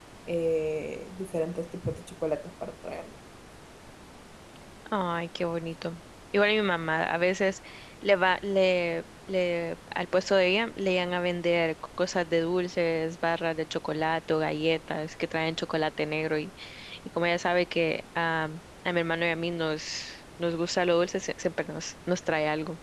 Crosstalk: none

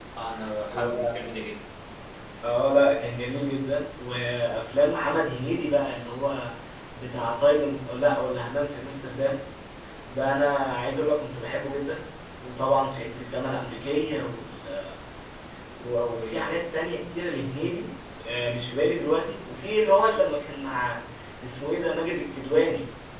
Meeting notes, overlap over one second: none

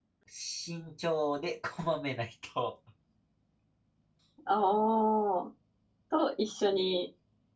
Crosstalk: none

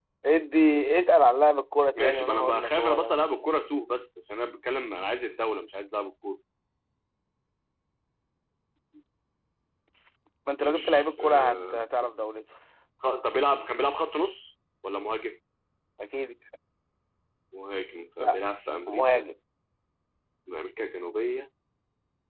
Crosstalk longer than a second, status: present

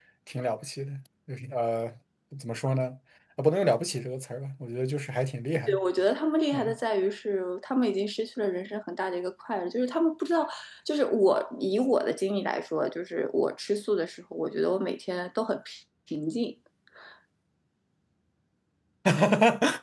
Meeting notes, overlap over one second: none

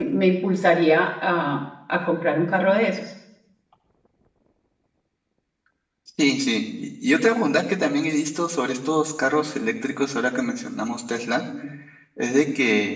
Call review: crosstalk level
none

